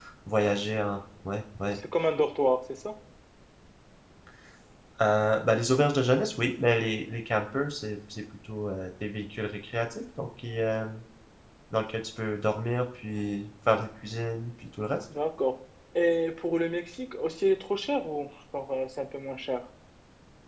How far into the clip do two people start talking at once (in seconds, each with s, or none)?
none